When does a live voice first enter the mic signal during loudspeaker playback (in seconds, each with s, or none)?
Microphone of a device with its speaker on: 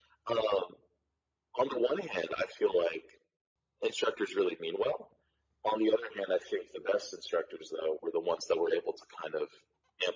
none